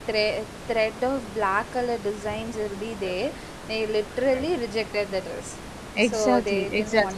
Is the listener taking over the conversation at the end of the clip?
Yes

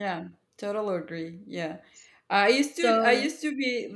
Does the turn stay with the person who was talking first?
Yes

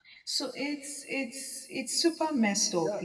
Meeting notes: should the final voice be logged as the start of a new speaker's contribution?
Yes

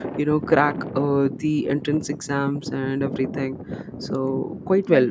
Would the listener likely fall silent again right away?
Yes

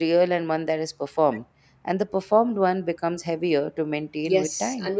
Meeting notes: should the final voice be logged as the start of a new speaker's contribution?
Yes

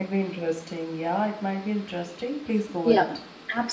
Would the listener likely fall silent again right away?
No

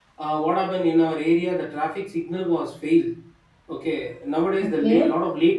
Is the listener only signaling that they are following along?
Yes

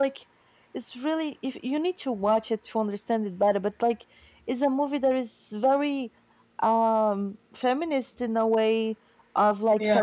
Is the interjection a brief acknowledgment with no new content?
Yes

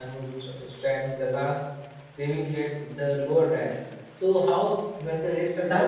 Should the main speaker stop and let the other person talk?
Yes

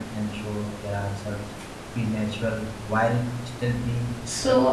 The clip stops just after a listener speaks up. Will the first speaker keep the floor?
No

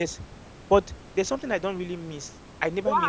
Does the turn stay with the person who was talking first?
No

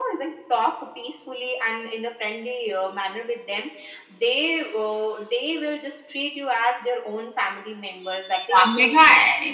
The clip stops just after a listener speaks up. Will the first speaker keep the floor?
No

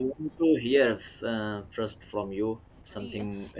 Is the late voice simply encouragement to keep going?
No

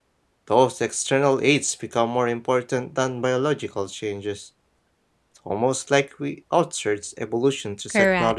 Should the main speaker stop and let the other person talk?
Yes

